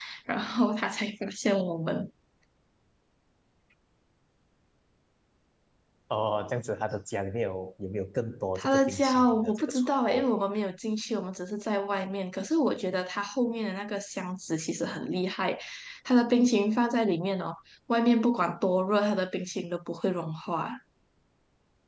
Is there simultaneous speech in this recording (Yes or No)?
Yes